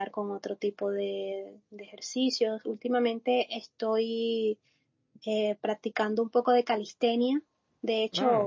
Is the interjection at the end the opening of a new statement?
No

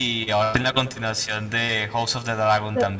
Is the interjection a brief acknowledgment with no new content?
No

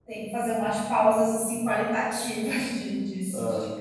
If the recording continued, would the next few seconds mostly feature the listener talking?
No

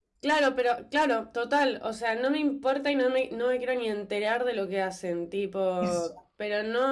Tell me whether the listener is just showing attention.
Yes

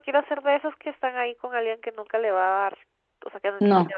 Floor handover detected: No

